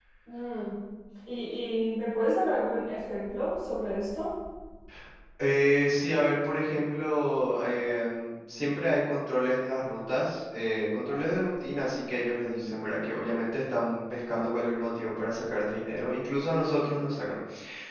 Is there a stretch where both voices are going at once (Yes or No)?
No